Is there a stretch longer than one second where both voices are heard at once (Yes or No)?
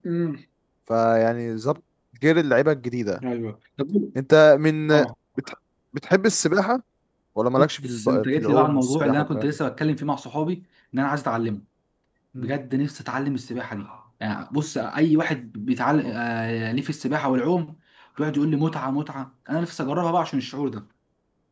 Yes